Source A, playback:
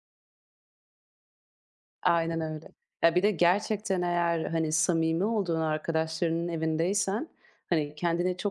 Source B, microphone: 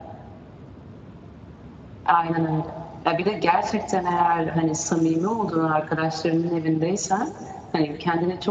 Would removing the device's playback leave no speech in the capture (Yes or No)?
Yes